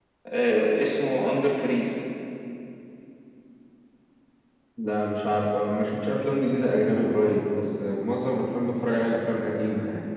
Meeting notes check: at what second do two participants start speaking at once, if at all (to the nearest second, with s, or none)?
none